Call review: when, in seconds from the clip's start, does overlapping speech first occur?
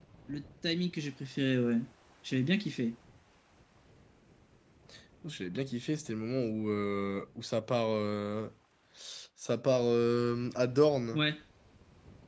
none

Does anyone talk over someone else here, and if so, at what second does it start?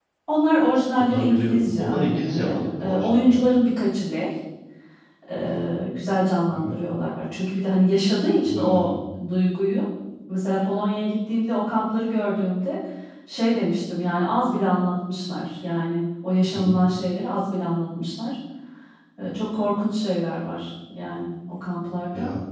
1 s

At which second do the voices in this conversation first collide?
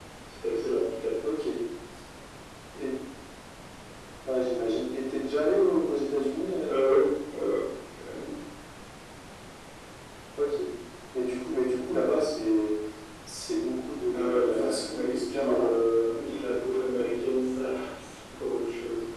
14 s

